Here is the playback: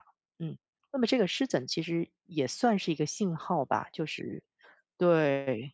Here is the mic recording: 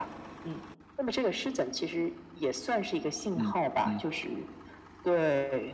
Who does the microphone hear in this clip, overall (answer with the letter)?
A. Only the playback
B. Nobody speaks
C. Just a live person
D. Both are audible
D